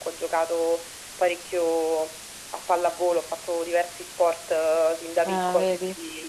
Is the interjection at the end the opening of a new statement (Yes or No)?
No